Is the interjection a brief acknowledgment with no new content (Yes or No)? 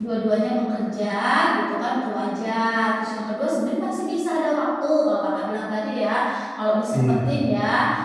Yes